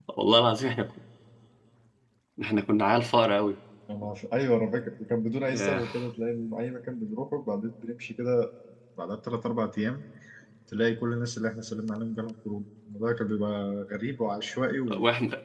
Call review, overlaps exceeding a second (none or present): none